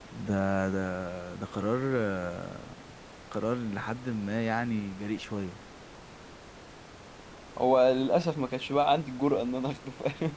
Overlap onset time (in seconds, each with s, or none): none